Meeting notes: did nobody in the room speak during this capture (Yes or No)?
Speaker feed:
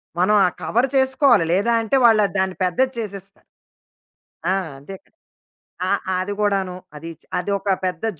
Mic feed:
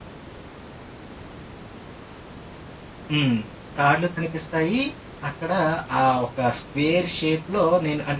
No